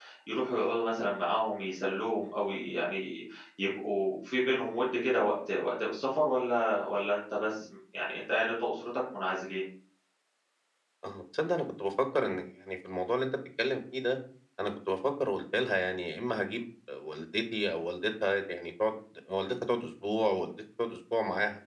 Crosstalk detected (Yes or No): No